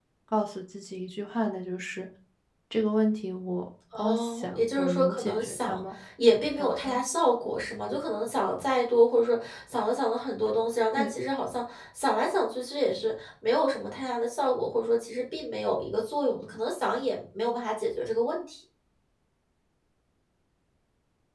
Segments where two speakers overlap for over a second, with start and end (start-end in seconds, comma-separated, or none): 3.9-5.8